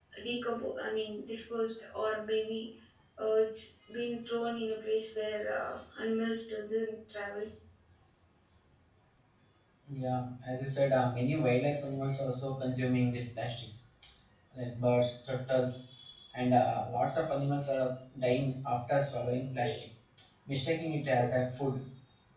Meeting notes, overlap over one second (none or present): none